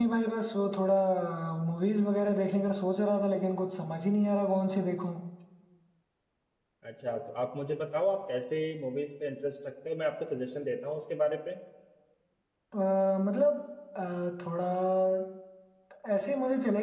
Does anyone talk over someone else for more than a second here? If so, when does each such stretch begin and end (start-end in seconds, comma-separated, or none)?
none